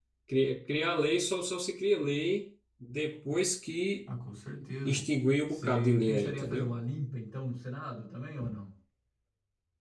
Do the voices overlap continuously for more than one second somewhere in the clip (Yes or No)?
Yes